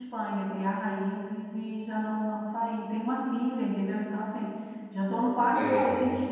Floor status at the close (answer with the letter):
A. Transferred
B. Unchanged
B